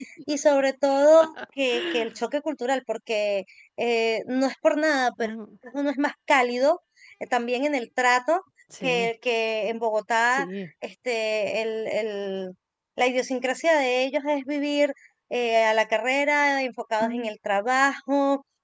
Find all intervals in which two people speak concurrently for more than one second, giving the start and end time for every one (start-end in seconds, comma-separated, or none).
none